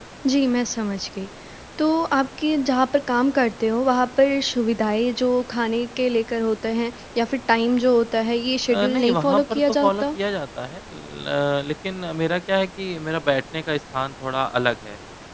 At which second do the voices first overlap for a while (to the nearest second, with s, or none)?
9 s